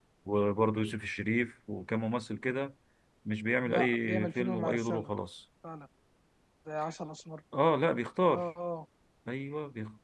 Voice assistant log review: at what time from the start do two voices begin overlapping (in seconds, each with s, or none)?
3.6 s